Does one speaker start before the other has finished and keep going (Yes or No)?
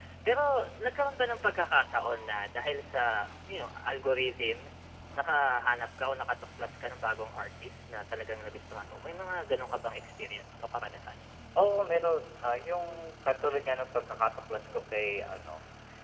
No